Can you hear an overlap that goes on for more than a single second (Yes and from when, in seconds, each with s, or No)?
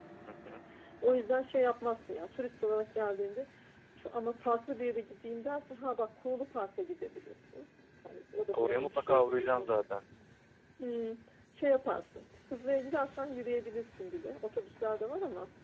Yes, from 8.5 s